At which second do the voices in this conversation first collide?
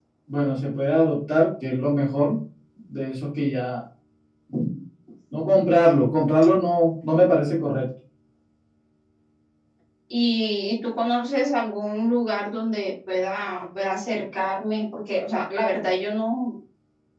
none

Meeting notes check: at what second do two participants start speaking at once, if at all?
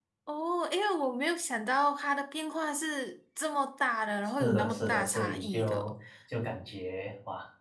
4.4 s

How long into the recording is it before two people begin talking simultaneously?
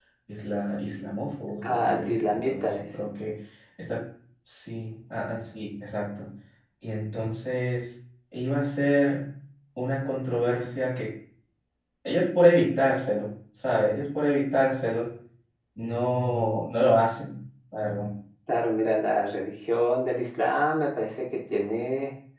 1.6 s

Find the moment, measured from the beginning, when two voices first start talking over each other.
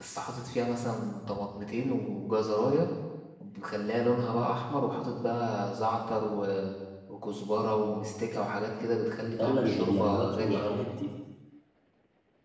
9.4 s

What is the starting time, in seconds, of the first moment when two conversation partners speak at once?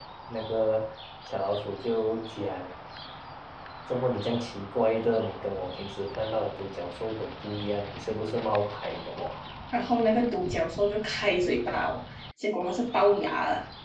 none

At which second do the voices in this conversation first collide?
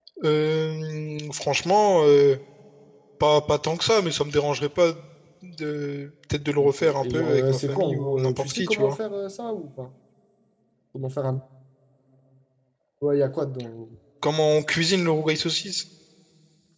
6.6 s

